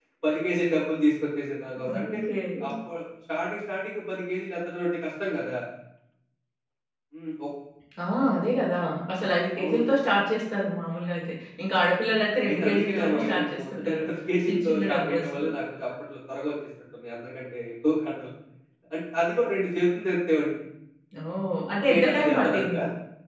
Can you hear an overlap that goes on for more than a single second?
Yes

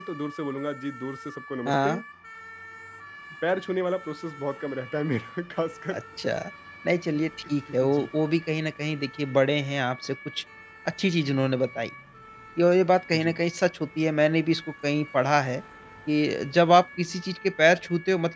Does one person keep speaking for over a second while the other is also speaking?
No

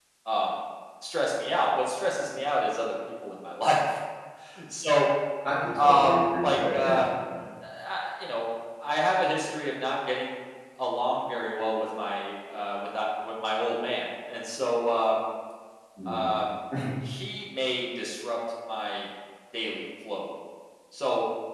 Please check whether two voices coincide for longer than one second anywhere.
Yes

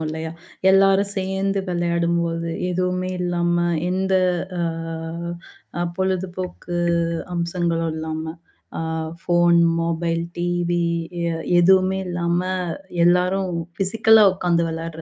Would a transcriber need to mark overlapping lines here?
No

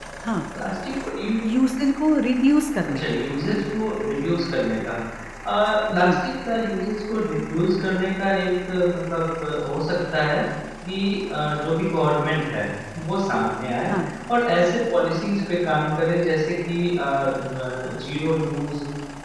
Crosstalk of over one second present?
No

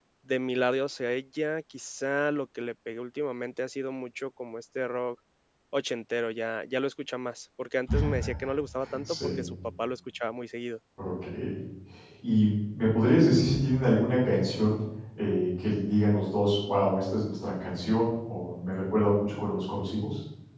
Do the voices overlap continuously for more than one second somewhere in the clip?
No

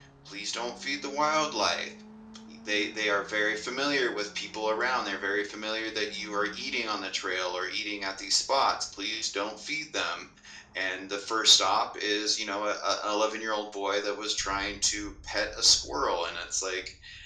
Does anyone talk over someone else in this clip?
No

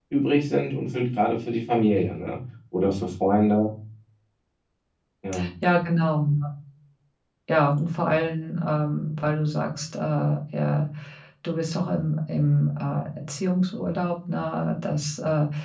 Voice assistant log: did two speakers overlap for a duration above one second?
No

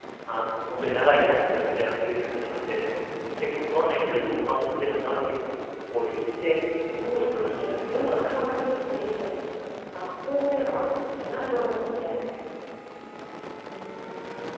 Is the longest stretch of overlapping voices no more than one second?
No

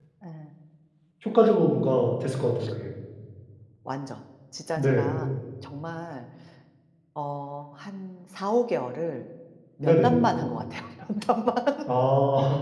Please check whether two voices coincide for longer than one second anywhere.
No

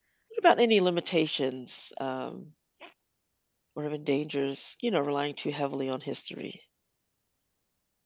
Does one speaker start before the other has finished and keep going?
No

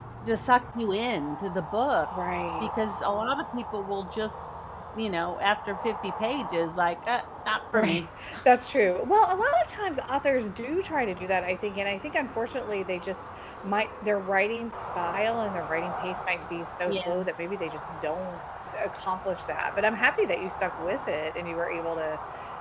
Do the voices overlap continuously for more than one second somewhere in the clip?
No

